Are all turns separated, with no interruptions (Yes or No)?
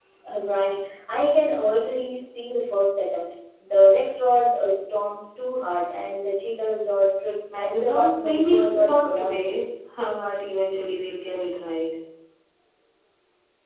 No